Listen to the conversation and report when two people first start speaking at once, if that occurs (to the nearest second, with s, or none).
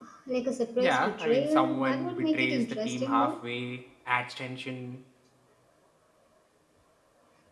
1 s